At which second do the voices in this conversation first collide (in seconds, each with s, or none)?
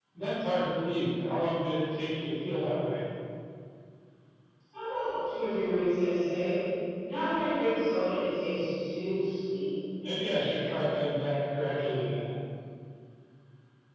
none